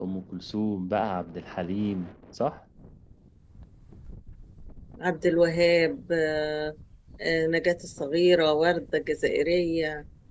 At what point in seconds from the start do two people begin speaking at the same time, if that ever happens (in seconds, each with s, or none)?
none